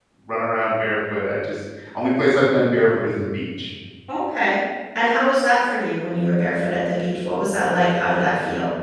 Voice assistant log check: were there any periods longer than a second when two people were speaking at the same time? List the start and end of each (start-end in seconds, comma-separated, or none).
none